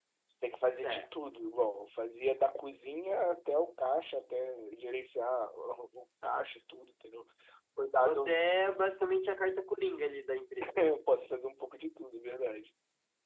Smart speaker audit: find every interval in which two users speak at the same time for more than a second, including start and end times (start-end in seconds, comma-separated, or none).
none